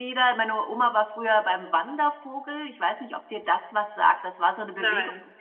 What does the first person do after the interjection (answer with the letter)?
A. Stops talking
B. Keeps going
B